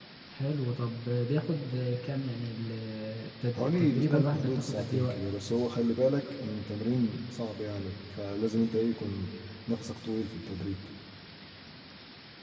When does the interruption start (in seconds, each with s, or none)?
3.5 s